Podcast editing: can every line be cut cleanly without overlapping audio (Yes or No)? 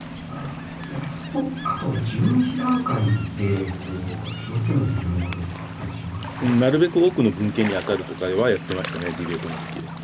Yes